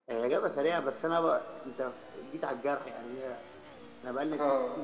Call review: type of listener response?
listening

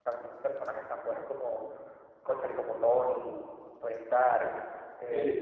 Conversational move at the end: listening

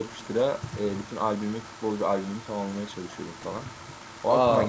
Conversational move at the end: taking over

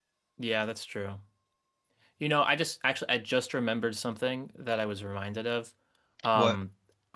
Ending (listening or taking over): listening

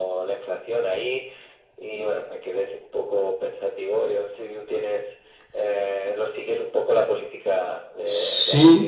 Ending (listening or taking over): taking over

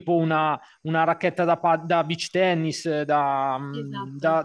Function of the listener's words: listening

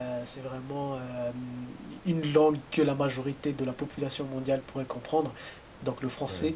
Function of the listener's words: listening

